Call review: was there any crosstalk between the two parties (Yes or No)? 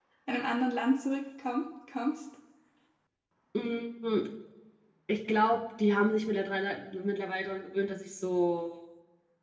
No